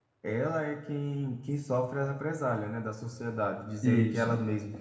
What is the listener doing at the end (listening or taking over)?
listening